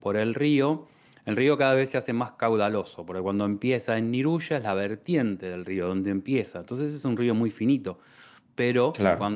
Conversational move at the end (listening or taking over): listening